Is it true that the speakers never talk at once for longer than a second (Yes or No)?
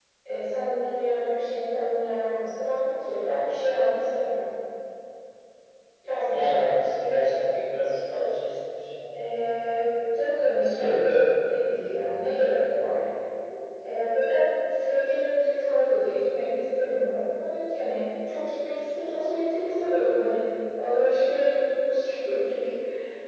Yes